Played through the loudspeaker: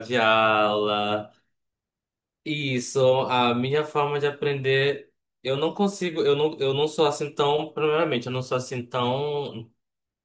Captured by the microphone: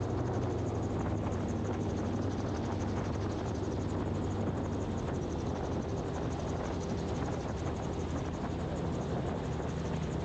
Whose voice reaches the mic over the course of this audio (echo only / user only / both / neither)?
neither